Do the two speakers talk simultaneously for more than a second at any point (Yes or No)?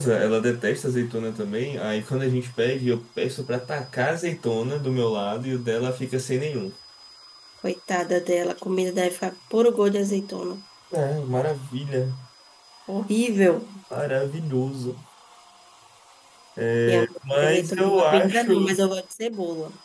Yes